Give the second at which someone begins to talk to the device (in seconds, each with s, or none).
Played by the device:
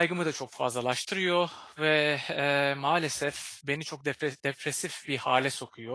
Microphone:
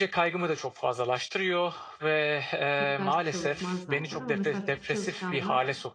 2.8 s